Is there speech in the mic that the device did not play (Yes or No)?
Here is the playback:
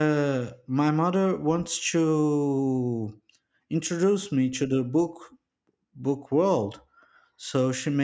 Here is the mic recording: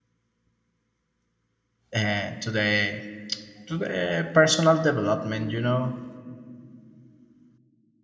Yes